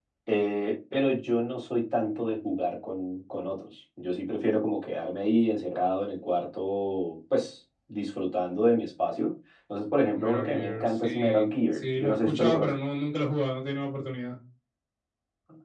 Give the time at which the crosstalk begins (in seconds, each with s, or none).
10.1 s